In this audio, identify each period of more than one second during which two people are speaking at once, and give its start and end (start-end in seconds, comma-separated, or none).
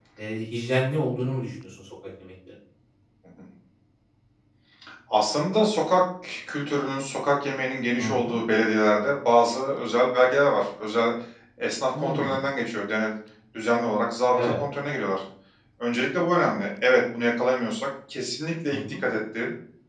none